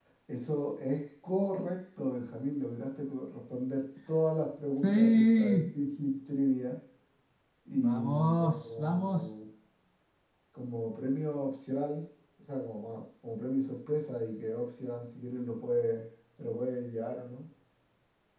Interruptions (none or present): present